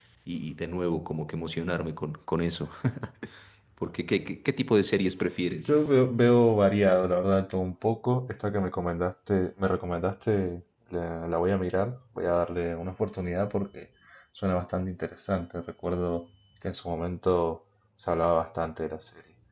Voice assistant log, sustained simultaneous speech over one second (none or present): none